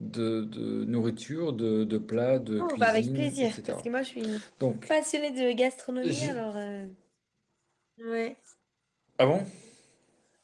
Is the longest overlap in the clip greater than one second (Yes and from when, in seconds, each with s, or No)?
Yes, from 2.6 s